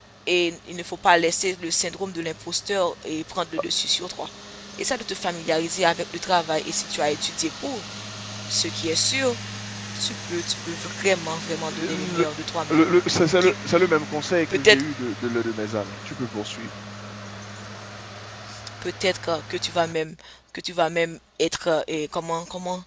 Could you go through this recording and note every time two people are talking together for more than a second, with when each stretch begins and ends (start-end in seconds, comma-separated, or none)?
none